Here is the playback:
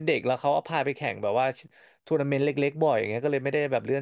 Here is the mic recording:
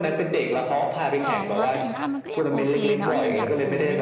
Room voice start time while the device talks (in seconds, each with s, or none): 1.2 s